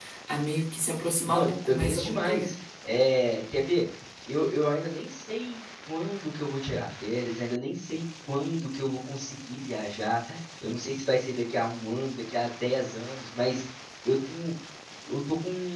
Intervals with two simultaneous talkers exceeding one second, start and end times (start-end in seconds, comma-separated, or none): 1.3-2.5